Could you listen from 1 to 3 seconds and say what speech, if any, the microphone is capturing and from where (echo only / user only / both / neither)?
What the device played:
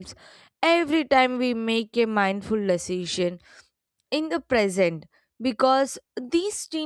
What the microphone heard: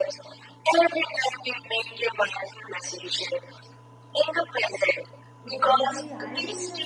echo only